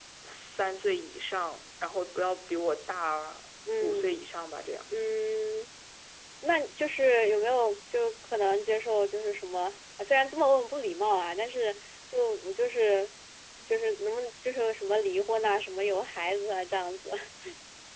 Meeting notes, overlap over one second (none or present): none